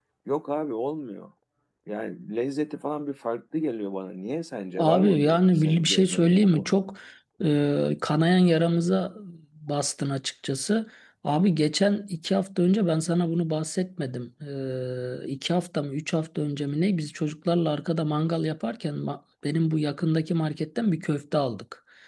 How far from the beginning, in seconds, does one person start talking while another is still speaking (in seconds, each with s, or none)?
4.8 s